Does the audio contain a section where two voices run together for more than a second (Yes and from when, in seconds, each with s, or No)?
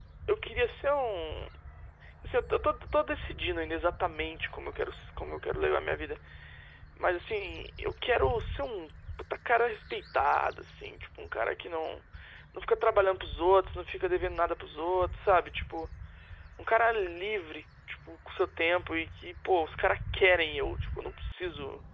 No